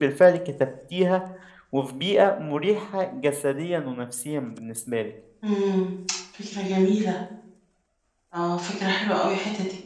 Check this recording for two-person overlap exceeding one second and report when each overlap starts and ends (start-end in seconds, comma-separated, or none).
none